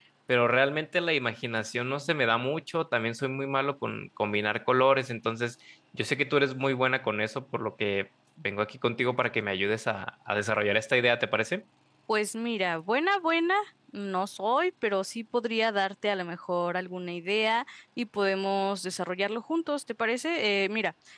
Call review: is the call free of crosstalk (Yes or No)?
Yes